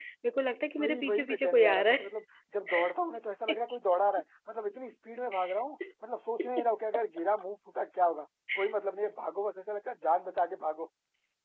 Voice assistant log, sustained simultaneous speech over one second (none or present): present